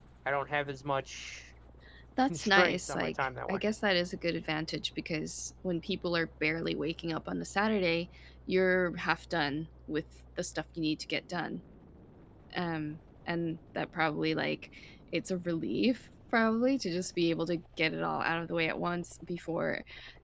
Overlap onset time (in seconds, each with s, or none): 2.3 s